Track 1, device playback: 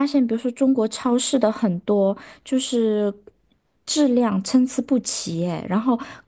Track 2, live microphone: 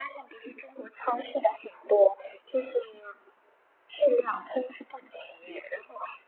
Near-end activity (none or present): none